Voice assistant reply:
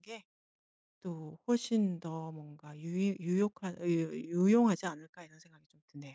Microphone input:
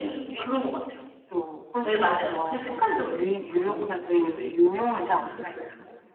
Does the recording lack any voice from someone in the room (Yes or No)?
No